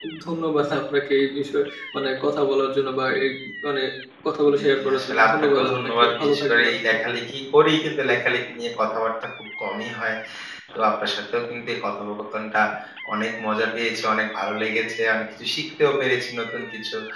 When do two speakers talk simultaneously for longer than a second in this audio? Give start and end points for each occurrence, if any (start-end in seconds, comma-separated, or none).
4.6-6.7